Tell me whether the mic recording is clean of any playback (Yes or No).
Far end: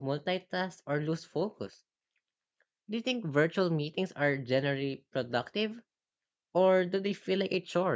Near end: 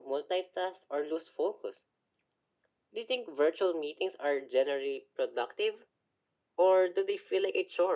No